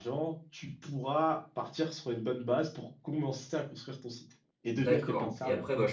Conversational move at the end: taking over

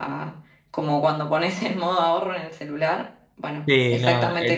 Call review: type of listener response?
taking over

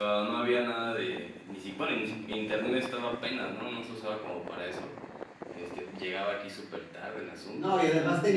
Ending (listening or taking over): taking over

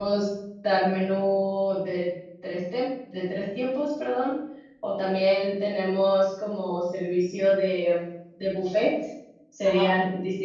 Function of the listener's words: listening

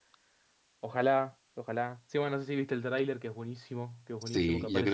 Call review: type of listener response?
taking over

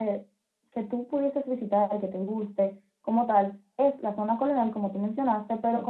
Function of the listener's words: listening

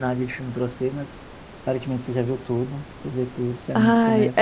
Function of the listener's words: taking over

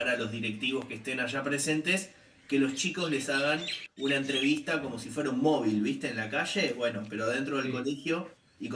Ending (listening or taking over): listening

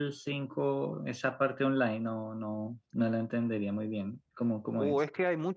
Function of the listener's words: taking over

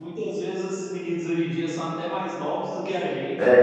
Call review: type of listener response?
taking over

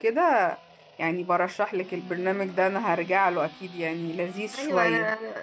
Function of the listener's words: taking over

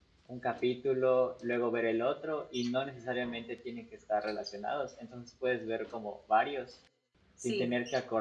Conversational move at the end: listening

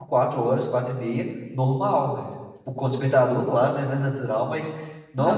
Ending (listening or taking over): listening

